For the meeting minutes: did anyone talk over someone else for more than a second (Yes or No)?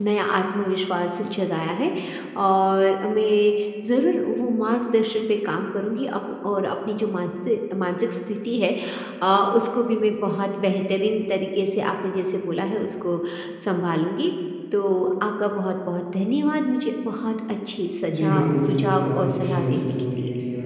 Yes